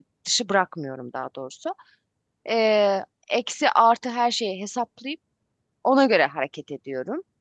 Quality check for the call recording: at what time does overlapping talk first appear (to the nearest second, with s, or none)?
none